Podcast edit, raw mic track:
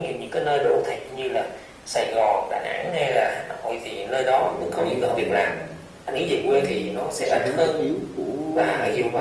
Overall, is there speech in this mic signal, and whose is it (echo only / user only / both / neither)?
both